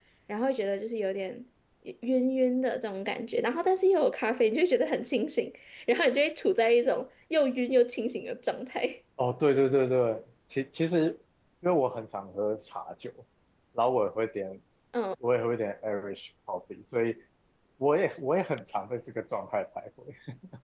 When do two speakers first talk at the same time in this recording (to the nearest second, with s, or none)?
none